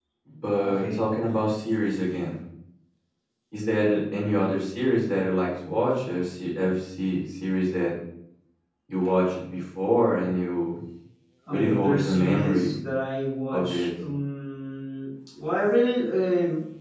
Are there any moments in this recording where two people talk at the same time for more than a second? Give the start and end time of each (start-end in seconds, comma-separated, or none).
11.5-12.8